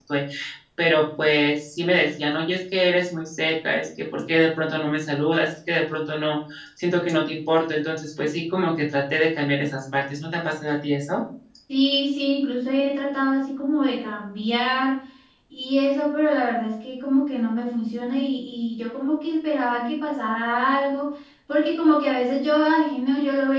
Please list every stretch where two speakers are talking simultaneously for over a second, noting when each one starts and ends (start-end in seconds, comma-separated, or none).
none